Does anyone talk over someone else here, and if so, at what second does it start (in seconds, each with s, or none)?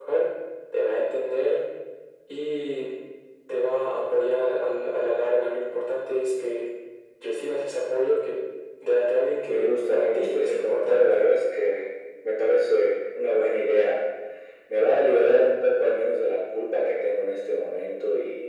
9.5 s